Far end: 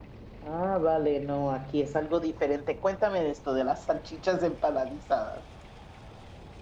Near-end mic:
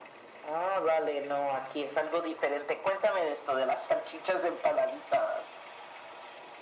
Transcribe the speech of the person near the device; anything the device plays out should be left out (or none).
none